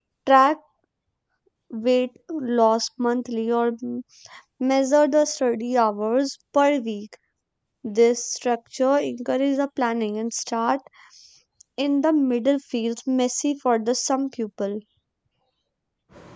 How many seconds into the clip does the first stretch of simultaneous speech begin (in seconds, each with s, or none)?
none